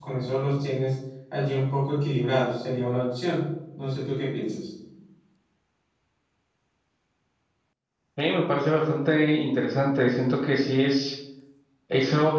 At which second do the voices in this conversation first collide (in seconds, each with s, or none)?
none